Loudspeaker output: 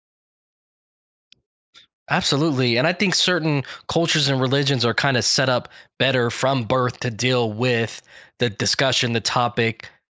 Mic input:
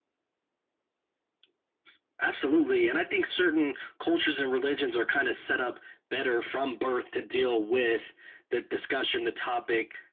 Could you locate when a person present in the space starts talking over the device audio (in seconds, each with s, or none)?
none